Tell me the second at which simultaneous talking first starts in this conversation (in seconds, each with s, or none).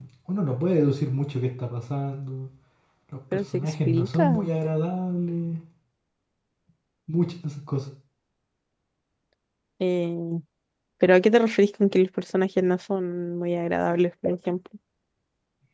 3.3 s